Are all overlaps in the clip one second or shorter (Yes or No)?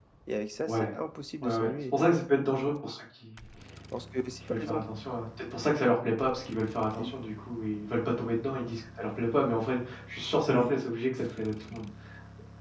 Yes